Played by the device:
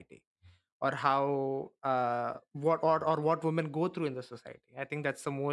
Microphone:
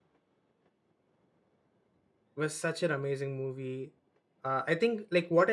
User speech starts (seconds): 2.4 s

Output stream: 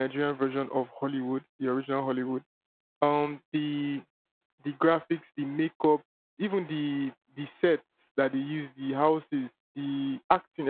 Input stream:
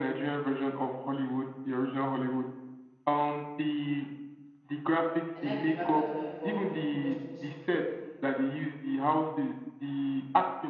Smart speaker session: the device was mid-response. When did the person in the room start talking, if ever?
5.3 s

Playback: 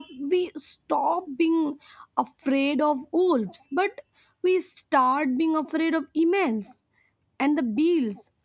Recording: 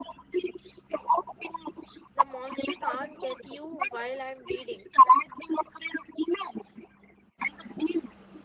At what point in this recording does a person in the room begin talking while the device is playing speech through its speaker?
2.1 s

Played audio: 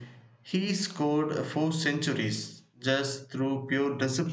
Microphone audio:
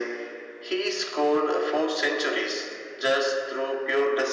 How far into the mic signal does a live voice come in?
none

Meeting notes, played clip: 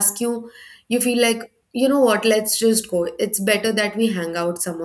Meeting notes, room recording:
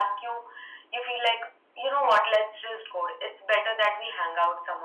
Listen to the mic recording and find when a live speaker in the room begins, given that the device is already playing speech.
none

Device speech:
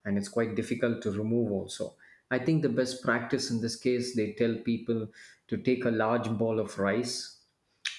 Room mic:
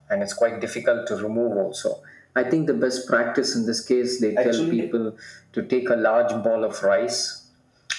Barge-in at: 4.4 s

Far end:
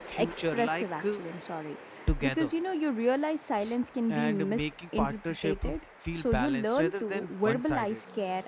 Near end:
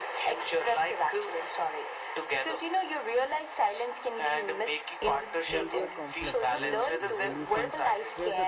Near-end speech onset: 5.0 s

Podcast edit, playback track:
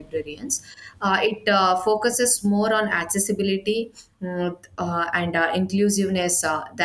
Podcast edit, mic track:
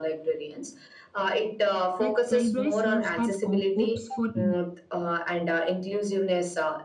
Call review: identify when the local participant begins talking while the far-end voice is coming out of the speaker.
2.0 s

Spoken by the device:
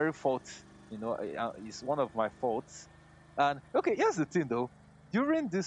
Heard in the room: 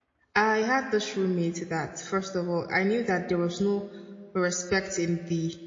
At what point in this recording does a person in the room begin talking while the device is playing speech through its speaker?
0.3 s

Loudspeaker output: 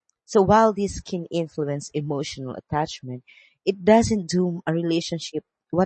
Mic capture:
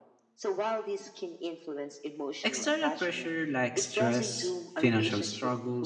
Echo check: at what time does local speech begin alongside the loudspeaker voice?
2.4 s

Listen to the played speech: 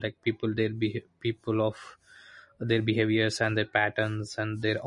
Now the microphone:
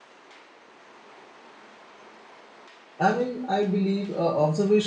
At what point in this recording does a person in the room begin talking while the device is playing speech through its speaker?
3.1 s

